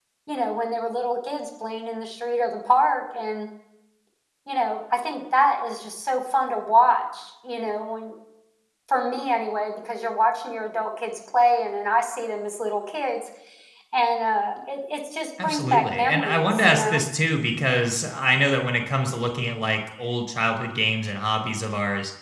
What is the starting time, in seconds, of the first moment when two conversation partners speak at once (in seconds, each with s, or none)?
15.4 s